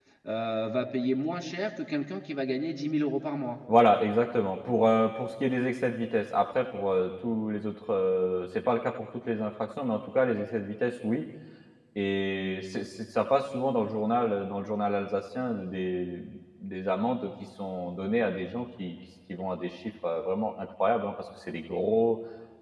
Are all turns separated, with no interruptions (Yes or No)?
Yes